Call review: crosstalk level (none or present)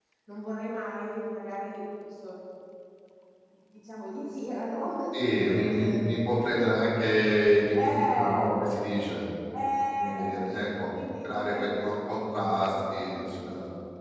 present